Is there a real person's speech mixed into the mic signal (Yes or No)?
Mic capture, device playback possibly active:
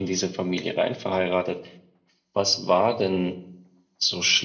No